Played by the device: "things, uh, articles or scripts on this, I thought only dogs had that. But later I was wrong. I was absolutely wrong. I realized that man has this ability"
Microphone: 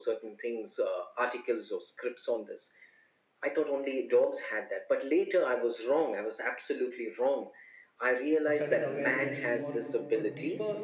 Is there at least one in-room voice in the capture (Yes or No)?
Yes